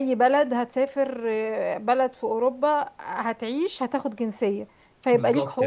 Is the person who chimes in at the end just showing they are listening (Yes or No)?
No